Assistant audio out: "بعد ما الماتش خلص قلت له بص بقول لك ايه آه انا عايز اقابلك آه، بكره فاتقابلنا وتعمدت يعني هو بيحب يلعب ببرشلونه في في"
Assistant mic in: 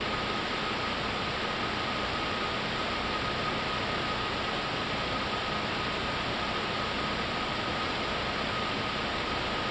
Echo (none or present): none